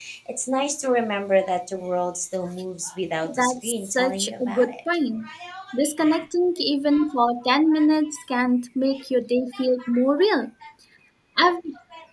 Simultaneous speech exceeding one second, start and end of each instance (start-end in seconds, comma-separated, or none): 3.3-4.7